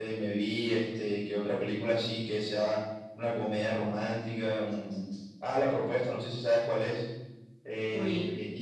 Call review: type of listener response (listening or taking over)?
listening